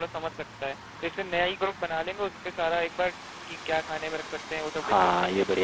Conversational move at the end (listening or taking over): taking over